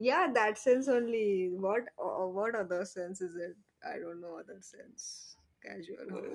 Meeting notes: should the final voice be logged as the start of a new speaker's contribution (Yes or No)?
Yes